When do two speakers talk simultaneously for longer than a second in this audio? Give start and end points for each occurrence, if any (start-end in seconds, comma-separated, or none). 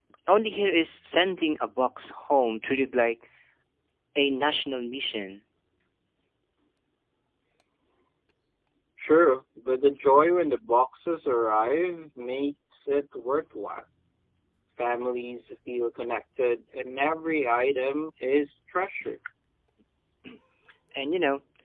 none